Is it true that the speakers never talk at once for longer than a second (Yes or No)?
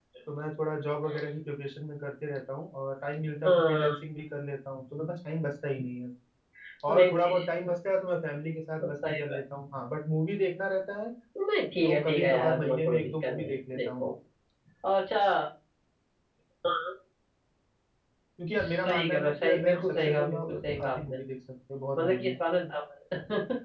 No